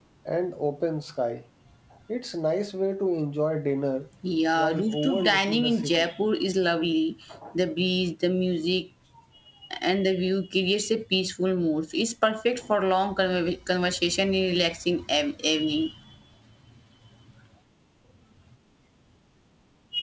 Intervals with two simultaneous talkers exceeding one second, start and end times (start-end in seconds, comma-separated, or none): 4.5-6.1